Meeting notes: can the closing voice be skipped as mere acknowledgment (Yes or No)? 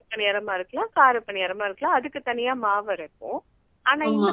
Yes